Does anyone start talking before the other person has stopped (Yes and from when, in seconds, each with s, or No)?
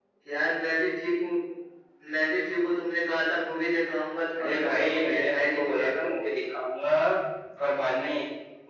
Yes, from 4.3 s